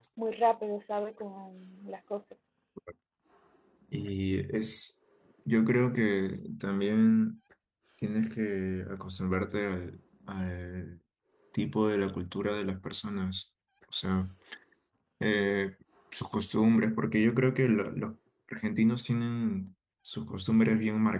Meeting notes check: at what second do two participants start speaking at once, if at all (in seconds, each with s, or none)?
none